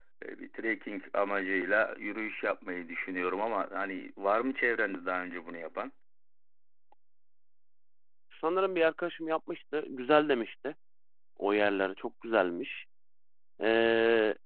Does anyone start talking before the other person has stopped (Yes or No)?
No